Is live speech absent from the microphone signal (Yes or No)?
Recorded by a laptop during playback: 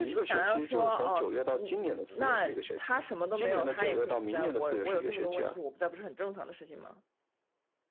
No